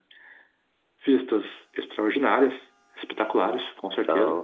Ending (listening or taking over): listening